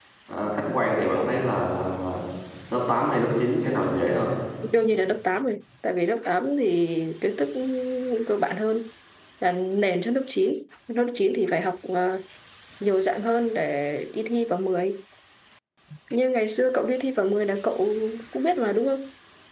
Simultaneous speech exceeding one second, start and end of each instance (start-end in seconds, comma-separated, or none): none